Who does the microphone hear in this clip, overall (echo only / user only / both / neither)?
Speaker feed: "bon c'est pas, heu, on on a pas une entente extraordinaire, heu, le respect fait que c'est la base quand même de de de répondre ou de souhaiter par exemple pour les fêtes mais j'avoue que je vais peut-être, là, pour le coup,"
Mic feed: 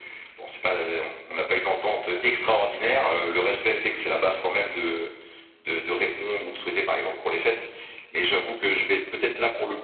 echo only